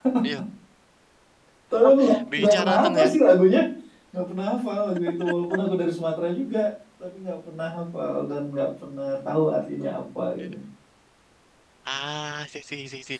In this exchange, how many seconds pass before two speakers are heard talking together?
1.8 s

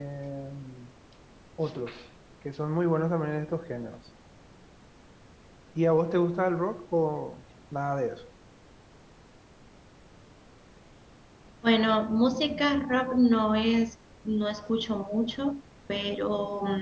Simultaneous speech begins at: none

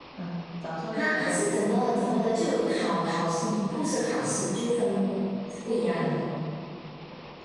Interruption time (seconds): 0.9 s

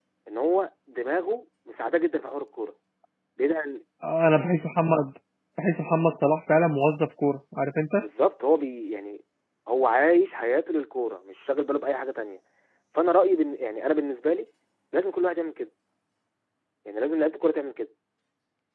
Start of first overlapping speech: none

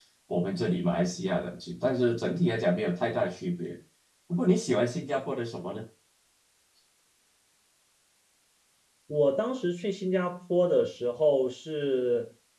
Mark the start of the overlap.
none

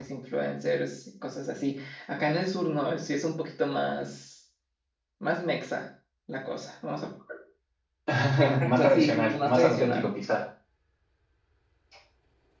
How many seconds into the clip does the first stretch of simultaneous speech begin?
8.6 s

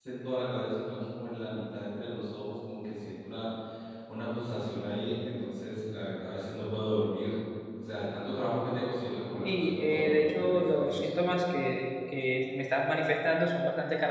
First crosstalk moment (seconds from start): 9.4 s

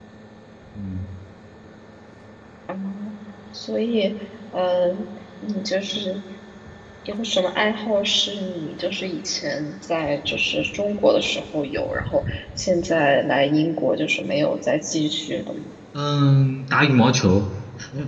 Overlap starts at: none

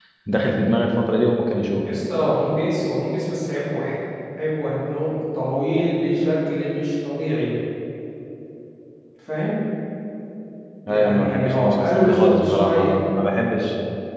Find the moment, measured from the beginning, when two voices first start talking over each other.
10.9 s

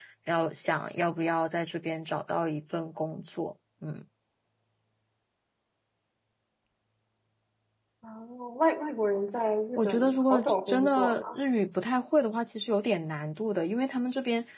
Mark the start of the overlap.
9.8 s

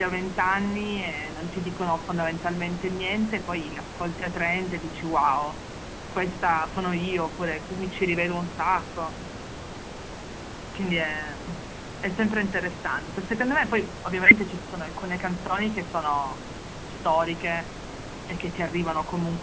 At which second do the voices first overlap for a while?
none

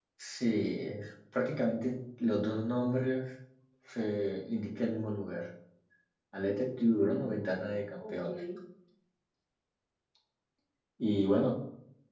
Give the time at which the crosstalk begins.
6.8 s

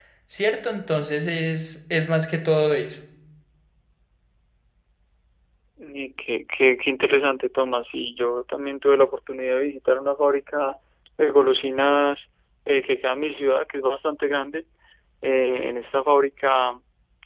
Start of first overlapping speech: none

